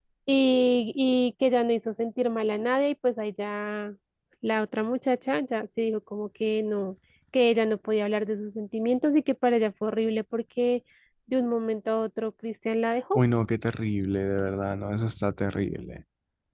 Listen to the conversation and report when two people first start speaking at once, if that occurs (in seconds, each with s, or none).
none